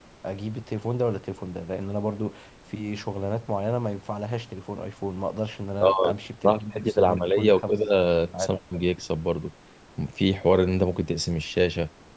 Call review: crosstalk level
present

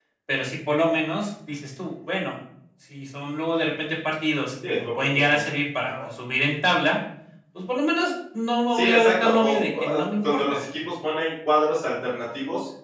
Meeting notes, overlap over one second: present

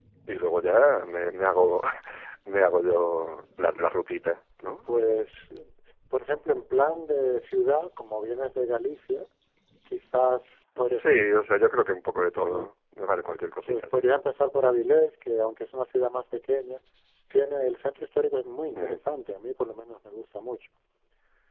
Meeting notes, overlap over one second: none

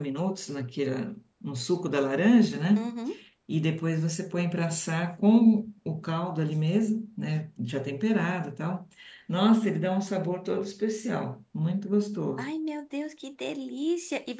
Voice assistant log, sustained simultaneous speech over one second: none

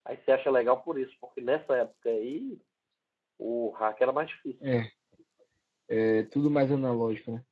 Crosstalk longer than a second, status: none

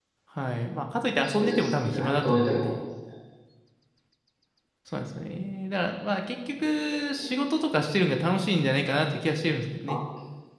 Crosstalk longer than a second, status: present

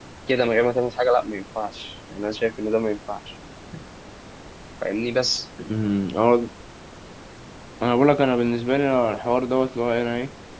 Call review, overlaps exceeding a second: none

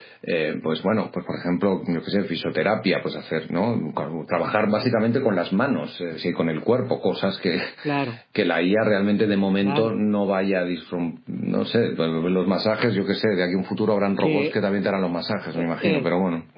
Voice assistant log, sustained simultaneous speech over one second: none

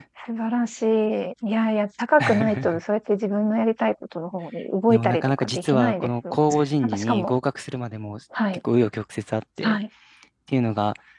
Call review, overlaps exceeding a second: present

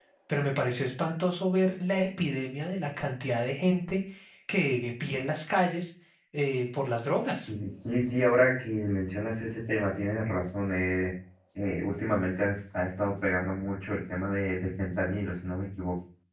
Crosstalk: none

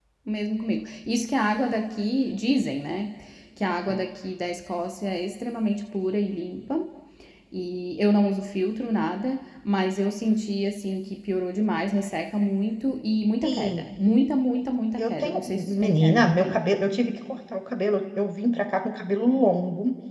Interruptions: present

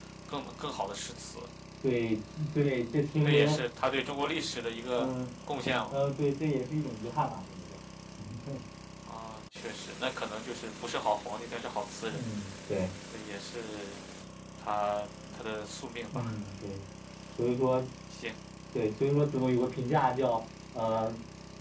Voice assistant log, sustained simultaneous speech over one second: none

